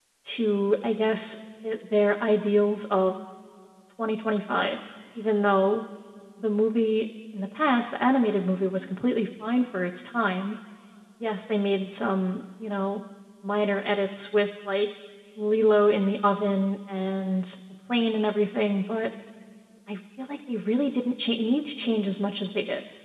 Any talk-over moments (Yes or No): No